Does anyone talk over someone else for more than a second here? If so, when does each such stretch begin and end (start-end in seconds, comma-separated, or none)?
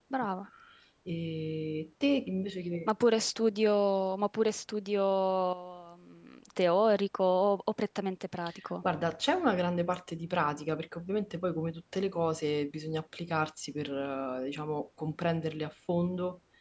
none